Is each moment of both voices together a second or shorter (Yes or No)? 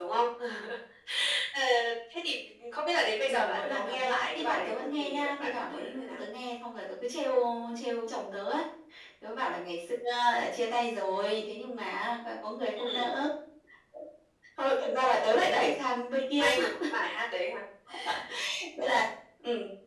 No